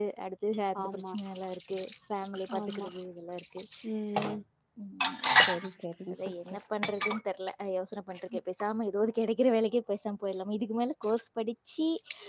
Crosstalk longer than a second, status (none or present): none